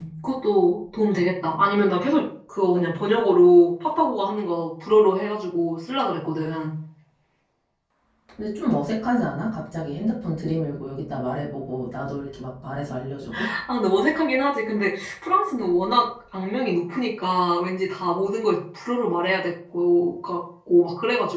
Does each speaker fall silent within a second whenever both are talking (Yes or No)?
Yes